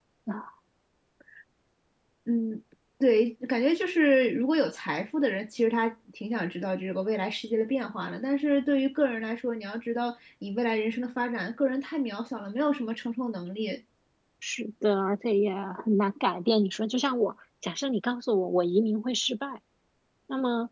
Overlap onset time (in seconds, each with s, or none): none